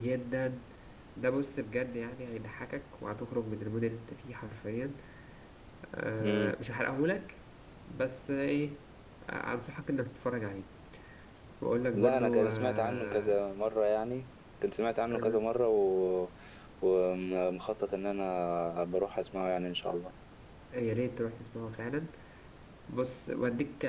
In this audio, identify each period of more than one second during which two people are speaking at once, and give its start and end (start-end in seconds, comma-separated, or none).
11.9-13.4